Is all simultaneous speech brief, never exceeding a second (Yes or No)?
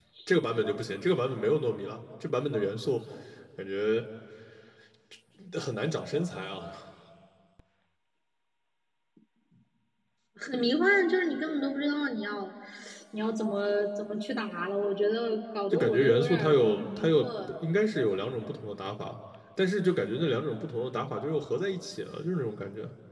No